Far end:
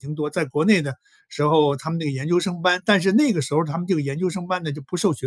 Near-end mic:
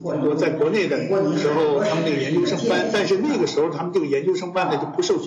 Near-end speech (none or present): present